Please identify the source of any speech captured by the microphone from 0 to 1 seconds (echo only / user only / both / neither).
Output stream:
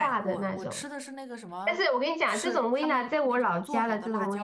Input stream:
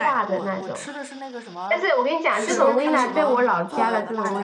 echo only